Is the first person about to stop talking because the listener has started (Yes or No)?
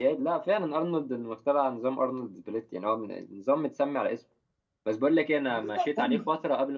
No